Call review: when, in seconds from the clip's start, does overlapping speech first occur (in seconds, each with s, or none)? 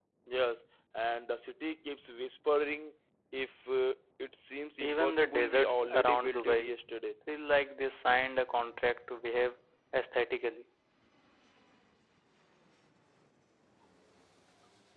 4.8 s